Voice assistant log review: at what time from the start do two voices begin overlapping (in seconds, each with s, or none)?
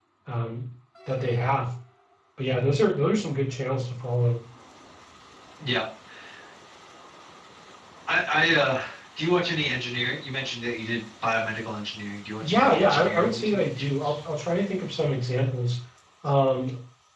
12.4 s